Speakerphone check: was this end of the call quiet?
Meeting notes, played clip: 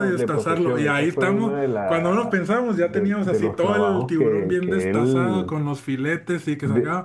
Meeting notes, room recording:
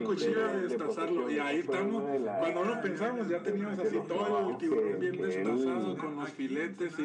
No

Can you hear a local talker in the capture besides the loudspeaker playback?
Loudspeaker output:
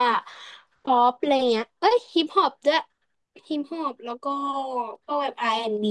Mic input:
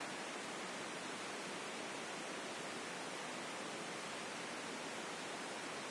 No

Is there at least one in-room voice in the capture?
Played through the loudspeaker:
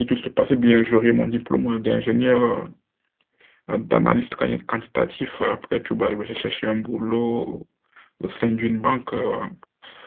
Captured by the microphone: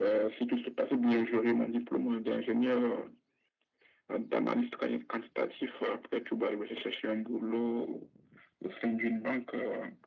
No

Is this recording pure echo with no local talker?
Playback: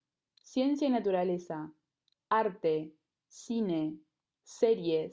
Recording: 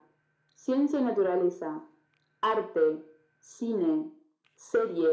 Yes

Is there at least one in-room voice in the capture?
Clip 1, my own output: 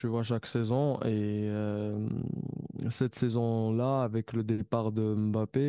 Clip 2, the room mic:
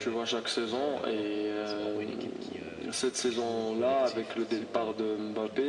Yes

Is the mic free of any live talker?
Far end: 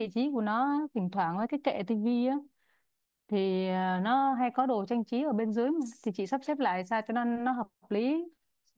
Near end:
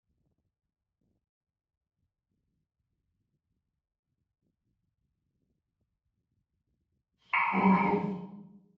No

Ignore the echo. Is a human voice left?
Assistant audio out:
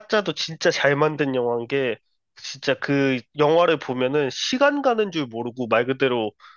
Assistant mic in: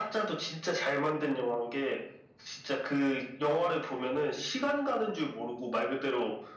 No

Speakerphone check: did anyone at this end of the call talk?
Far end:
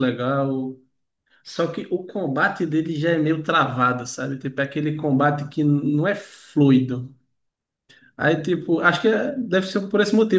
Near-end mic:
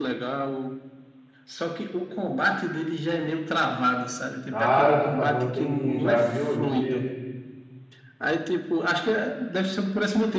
Yes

